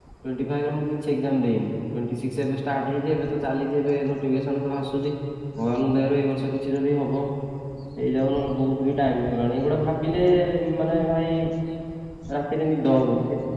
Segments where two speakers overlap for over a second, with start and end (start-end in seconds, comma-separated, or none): none